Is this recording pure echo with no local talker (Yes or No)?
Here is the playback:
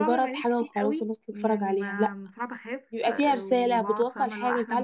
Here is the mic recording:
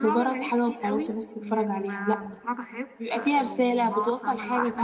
Yes